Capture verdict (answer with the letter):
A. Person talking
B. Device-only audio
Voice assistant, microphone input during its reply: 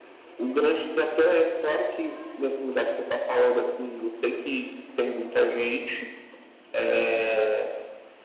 B